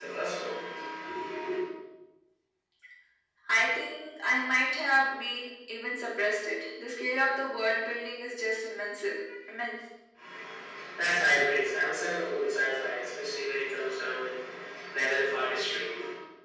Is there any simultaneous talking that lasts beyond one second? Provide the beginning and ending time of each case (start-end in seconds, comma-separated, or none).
none